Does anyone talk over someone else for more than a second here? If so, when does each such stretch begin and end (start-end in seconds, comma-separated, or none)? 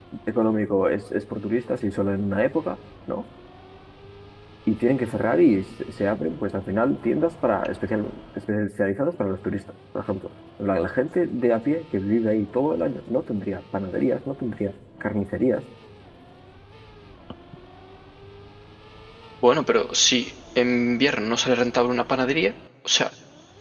none